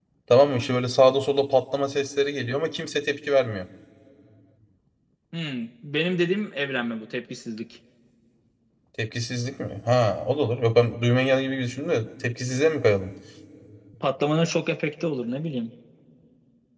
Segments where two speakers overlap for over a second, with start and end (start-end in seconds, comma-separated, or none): none